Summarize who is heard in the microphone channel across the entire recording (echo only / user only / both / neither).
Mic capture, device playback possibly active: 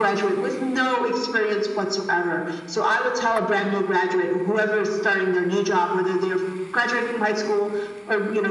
echo only